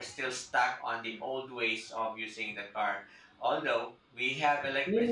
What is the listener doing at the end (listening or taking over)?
taking over